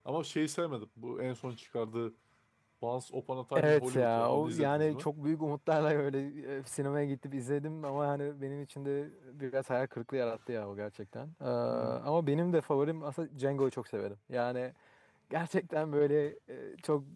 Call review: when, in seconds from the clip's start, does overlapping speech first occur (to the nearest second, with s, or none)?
4 s